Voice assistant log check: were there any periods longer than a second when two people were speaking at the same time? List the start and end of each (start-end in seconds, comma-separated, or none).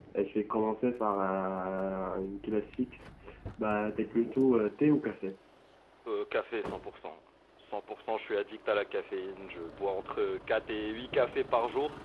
none